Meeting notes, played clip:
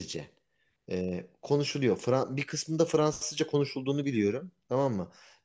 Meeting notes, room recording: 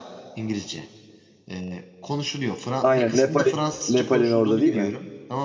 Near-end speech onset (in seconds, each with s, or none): 2.8 s